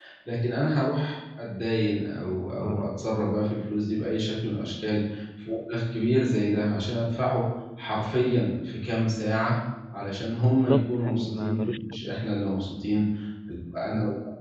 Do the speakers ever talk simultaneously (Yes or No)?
Yes